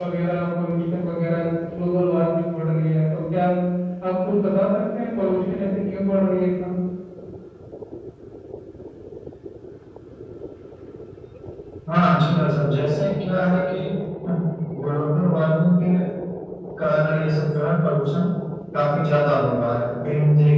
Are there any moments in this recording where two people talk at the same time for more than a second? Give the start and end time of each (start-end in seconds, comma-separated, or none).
none